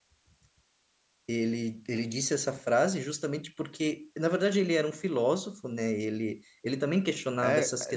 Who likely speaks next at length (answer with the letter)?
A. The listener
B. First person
A